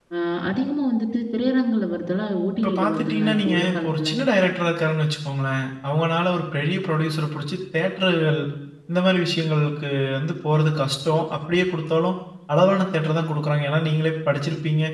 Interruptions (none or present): present